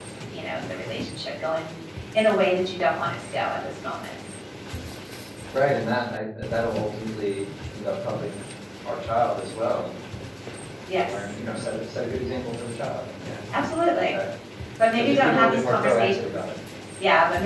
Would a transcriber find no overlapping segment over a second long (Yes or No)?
No